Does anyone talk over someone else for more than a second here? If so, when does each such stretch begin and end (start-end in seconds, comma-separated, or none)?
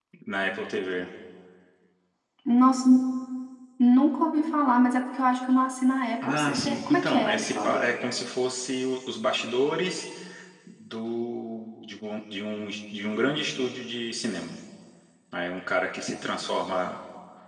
6.2-7.8